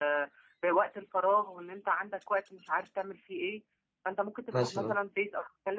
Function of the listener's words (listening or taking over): listening